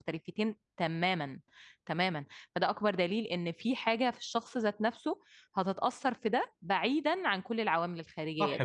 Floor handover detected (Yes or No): Yes